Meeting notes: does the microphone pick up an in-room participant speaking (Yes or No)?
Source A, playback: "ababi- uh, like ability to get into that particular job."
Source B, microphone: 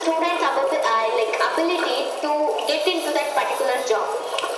No